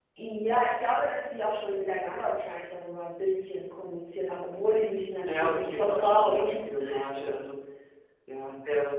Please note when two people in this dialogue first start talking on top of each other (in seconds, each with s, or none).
5.2 s